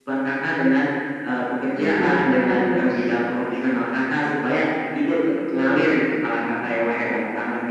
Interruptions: present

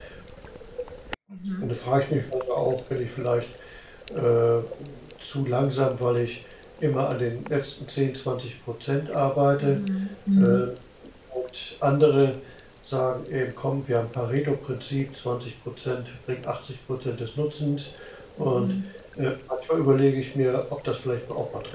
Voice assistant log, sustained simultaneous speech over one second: none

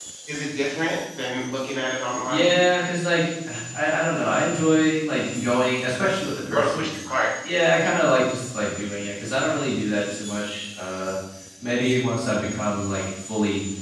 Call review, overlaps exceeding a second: none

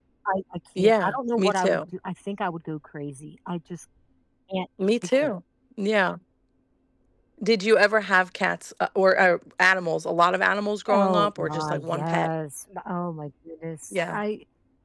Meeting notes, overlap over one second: present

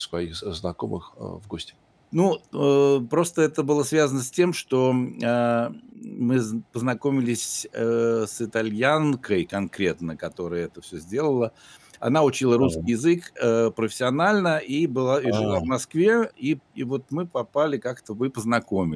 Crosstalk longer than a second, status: none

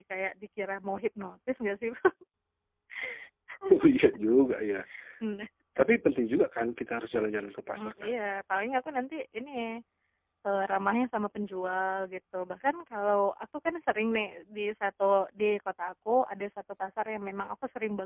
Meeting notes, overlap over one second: none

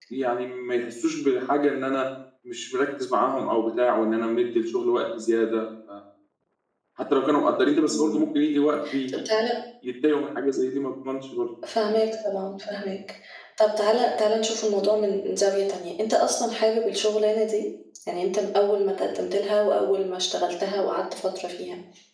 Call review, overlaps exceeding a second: none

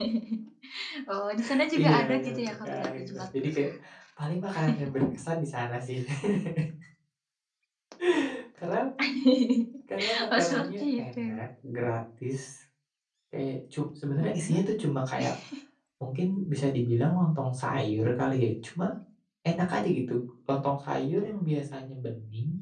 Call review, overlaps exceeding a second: present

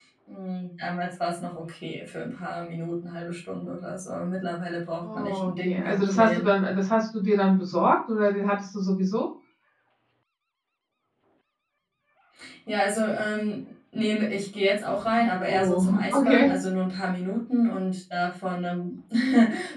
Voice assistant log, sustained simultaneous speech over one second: present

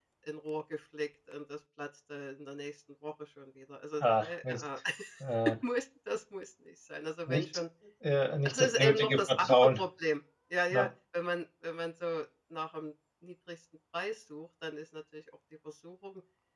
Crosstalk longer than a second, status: present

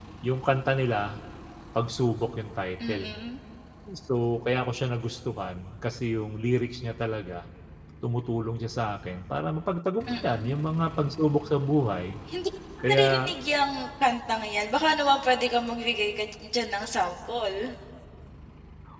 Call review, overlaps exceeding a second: none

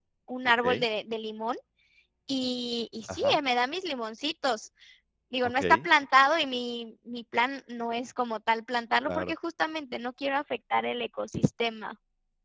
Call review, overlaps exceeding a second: none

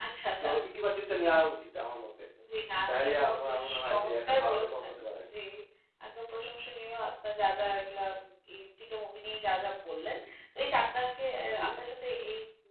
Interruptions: present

